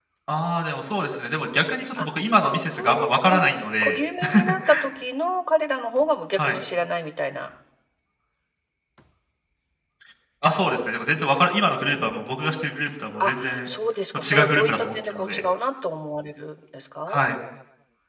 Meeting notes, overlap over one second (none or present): present